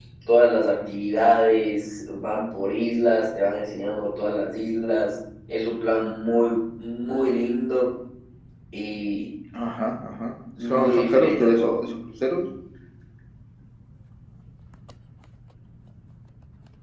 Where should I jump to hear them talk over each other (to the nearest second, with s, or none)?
11 s